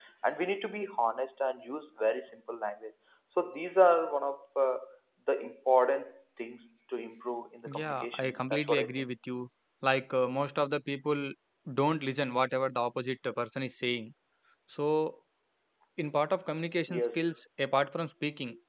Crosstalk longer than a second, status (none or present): present